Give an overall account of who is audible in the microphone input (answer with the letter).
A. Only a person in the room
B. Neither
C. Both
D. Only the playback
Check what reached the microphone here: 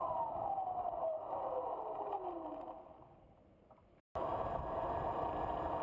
B